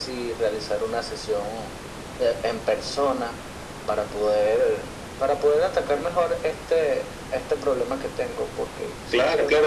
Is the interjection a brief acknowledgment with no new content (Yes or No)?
No